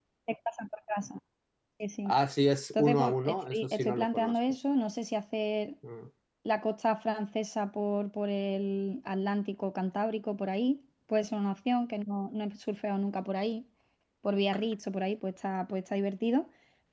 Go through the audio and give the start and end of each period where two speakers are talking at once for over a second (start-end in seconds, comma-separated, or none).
2.7-4.4